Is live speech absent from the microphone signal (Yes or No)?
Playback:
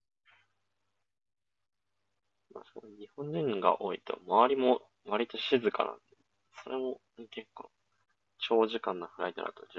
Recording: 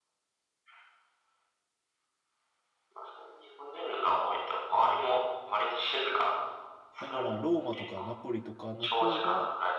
No